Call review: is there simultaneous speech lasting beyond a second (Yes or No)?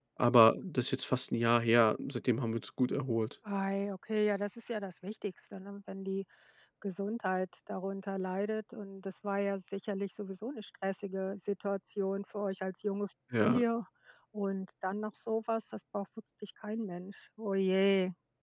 No